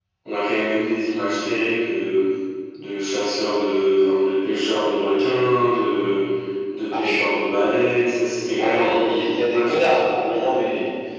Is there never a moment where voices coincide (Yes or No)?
No